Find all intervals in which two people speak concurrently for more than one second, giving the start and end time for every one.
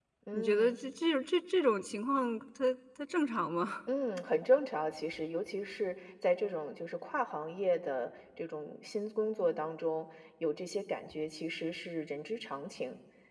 none

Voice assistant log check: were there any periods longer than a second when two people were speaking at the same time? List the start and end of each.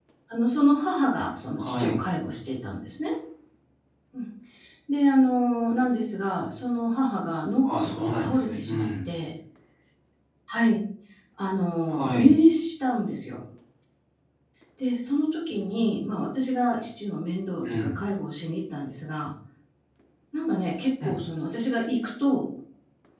7.6-9.1

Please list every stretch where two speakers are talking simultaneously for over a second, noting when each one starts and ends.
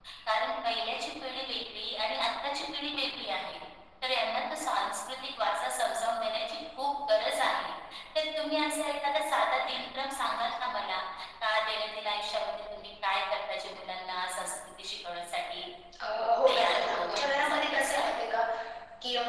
16.5-18.0

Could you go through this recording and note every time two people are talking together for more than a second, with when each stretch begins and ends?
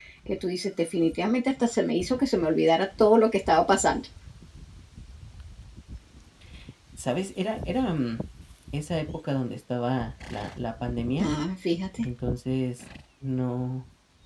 none

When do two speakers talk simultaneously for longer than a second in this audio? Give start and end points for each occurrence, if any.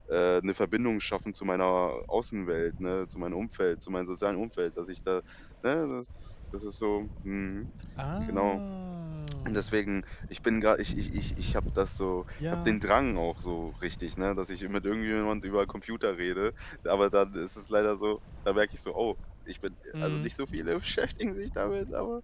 none

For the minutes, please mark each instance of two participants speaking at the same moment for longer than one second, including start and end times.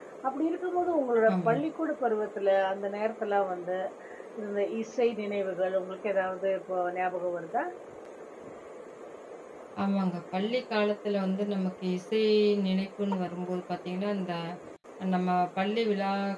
none

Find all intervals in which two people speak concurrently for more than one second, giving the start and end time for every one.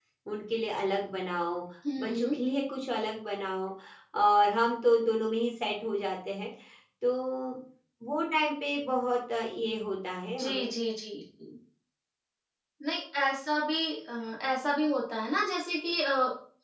none

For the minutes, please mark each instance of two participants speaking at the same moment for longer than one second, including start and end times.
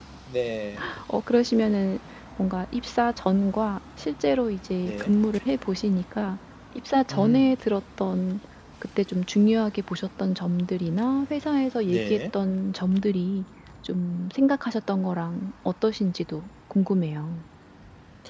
none

